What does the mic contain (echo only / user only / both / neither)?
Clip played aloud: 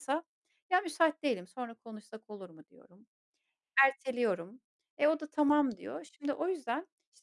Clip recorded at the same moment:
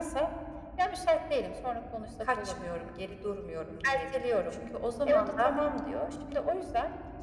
both